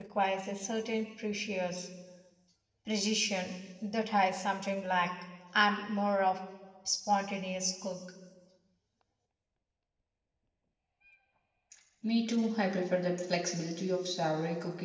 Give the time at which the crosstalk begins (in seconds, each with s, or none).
none